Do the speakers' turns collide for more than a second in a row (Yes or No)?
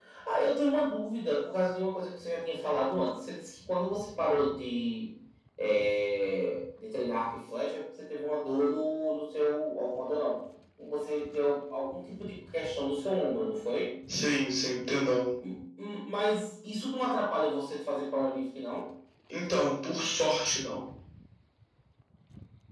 No